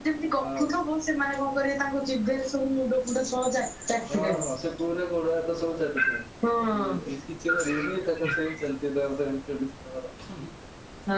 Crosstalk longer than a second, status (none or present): none